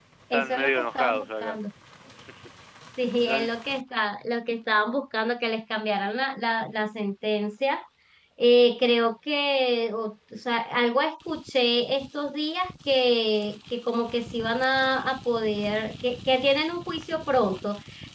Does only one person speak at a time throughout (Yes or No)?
No